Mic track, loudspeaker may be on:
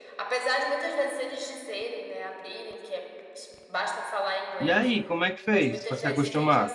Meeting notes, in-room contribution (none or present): present